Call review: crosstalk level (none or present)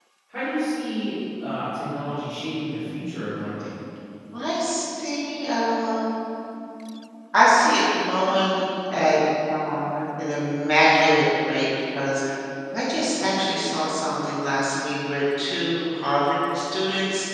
none